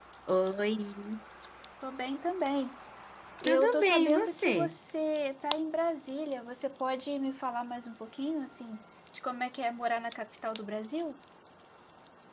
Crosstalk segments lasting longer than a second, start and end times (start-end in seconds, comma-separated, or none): 3.4-4.7